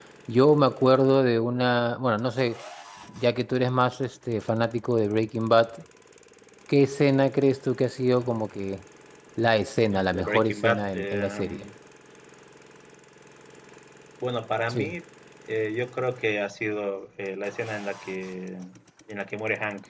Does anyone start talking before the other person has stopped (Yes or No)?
Yes